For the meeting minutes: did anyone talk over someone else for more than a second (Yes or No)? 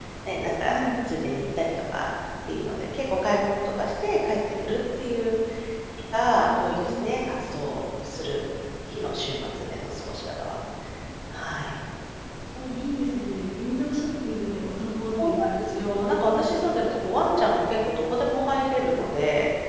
Yes